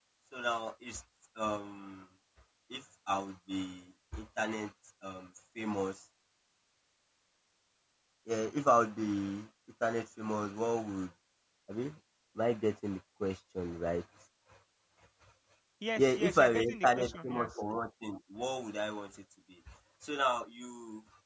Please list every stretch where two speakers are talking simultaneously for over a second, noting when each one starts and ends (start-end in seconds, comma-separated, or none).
16.0-17.6